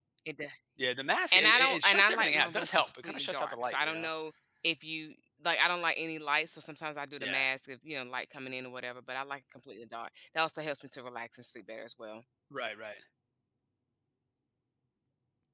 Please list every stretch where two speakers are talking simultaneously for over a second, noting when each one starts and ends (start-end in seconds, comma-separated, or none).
1.3-4.1